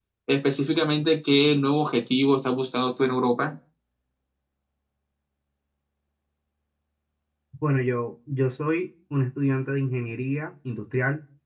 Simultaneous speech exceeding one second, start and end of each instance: none

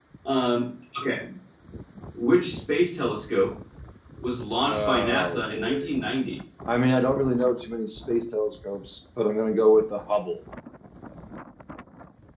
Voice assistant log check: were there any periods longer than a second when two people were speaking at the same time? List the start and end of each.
4.7-5.9

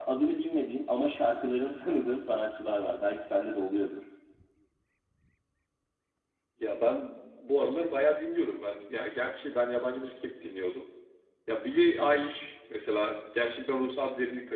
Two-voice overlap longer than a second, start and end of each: none

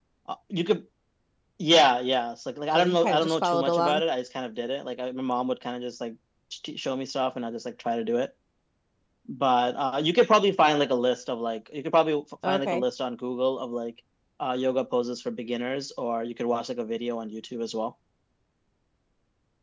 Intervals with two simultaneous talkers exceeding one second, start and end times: 2.7-4.0

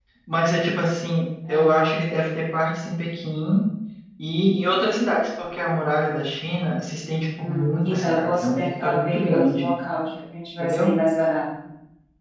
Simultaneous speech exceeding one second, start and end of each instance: 7.4-9.7

